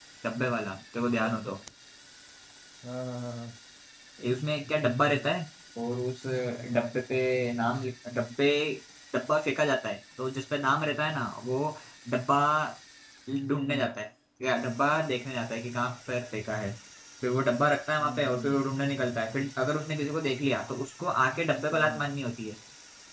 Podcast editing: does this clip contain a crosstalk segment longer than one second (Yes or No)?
No